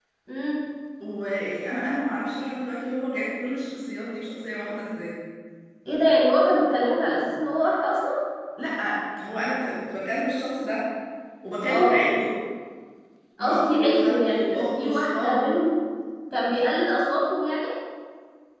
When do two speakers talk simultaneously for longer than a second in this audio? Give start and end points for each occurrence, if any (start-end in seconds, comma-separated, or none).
13.4-15.6